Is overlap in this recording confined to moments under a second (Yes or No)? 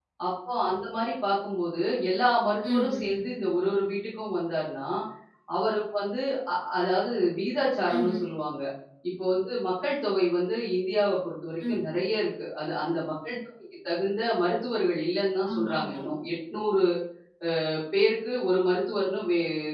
Yes